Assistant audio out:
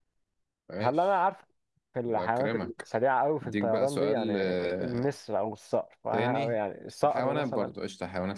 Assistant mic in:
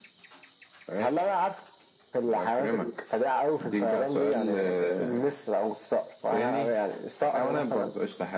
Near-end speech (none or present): none